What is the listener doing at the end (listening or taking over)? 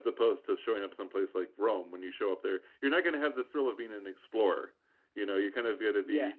listening